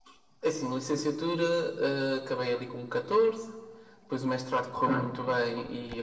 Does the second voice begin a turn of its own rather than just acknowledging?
No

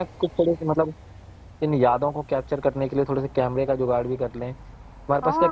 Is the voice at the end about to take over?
Yes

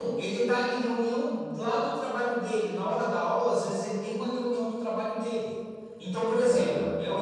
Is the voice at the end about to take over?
No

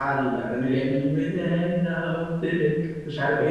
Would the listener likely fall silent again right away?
No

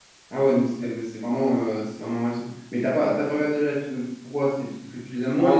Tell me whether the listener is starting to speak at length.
Yes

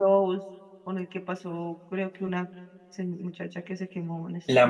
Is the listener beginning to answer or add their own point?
Yes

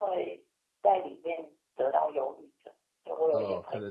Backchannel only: No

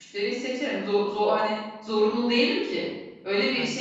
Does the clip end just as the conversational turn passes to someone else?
No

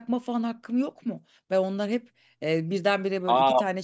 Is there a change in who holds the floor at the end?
No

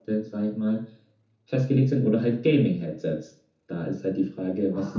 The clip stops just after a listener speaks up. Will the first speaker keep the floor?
No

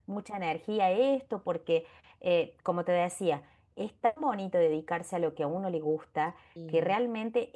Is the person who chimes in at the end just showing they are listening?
Yes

